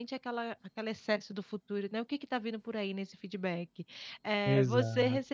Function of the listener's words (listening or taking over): listening